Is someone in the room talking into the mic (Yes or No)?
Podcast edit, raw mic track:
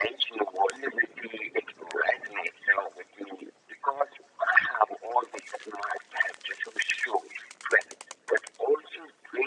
No